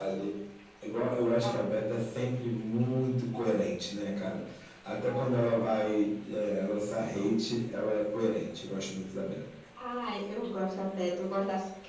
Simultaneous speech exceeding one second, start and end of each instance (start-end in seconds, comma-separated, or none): none